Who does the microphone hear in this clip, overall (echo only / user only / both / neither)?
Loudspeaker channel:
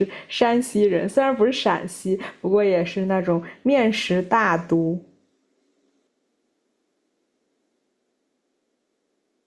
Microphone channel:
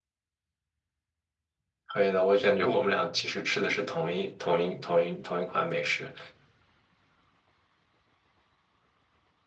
user only